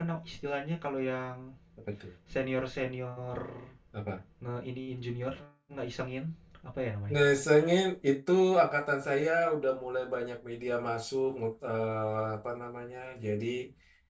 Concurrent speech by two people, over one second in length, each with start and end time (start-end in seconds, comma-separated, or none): none